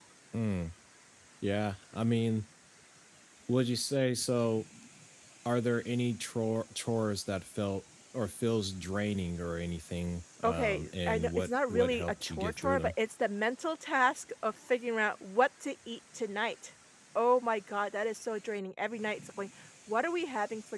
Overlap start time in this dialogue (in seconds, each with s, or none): 10.4 s